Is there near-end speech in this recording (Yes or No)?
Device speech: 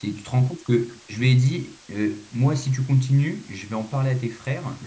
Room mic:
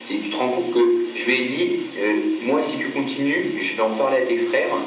No